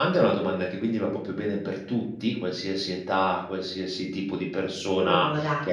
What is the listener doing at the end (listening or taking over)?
listening